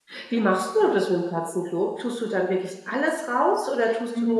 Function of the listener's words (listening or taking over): taking over